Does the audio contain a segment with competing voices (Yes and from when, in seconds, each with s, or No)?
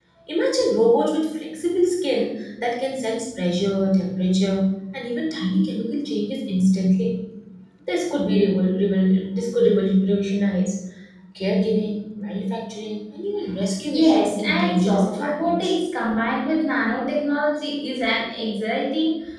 Yes, from 13.9 s